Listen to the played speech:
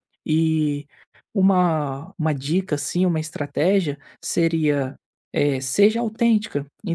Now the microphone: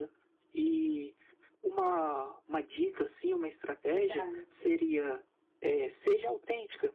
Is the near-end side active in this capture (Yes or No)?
Yes